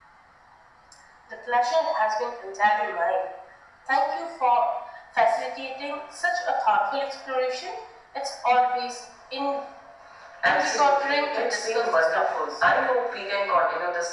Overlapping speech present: Yes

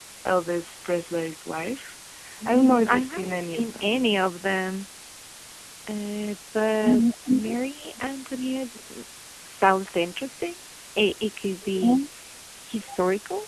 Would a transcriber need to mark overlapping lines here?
Yes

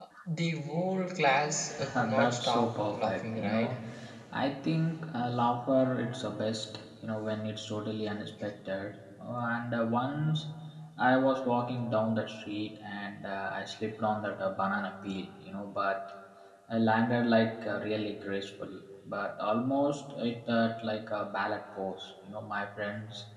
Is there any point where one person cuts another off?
Yes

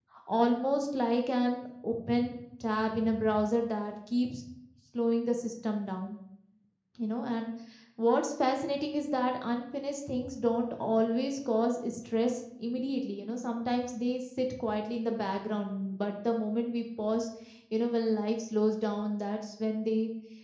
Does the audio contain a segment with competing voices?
No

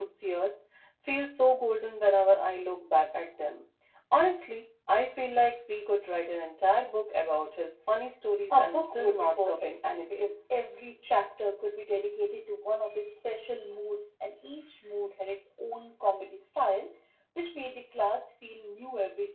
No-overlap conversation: No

